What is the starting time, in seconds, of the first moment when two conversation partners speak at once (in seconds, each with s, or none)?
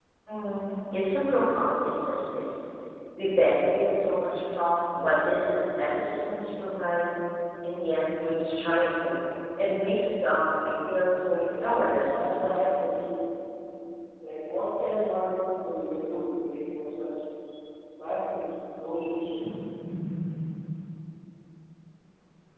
11.4 s